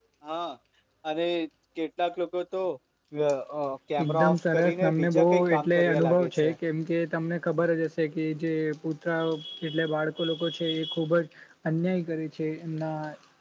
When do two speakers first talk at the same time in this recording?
4 s

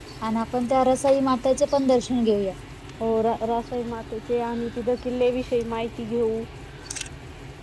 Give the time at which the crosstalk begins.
none

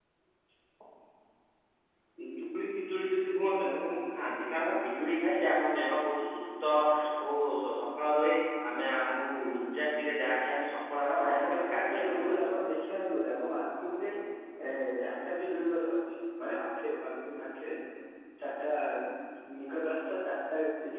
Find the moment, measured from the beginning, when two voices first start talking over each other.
11 s

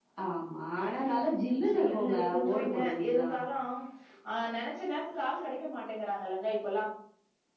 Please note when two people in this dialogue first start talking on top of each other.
2 s

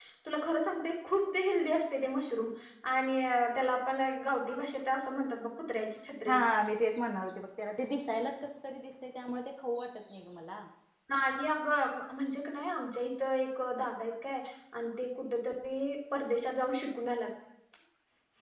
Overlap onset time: none

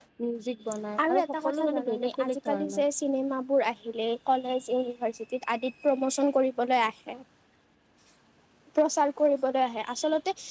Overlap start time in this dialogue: 1 s

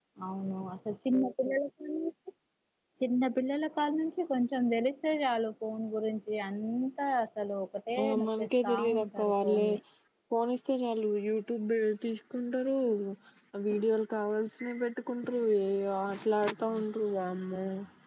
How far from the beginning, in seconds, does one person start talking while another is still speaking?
8 s

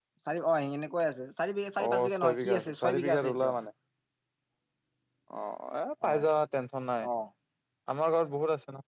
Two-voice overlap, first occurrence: 2 s

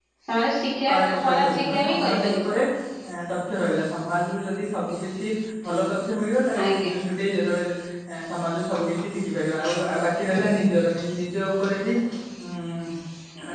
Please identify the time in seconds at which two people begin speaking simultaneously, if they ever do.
1 s

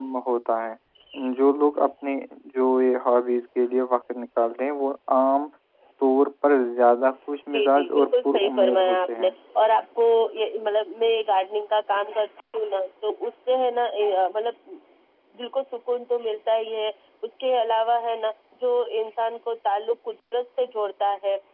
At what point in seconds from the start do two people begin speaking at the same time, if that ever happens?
7 s

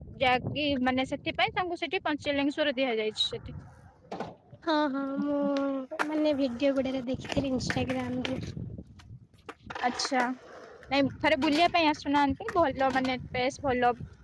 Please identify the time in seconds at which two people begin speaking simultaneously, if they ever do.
none

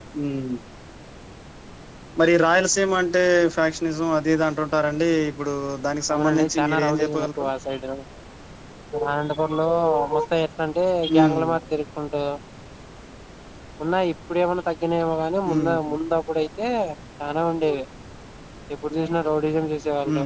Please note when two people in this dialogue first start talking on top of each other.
6 s

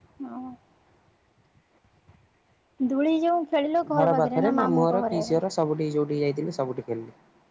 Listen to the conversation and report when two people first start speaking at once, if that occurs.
4 s

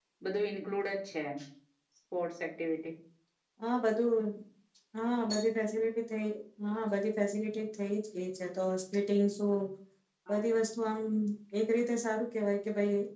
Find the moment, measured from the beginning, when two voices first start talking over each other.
none

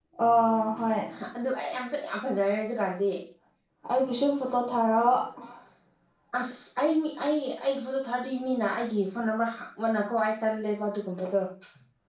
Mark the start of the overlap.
none

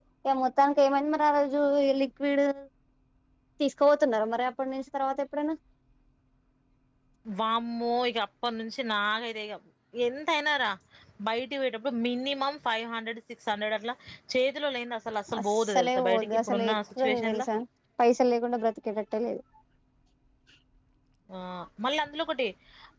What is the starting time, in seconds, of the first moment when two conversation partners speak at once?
15 s

